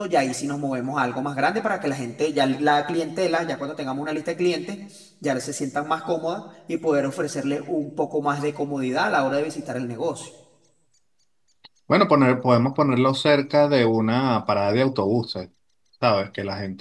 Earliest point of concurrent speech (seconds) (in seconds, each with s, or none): none